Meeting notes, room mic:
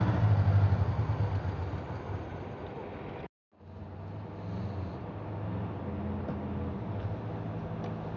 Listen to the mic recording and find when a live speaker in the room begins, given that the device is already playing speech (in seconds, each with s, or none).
none